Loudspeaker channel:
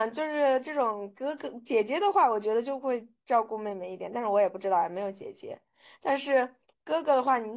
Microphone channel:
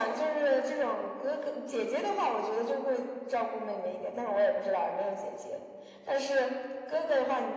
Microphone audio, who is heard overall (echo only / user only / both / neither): echo only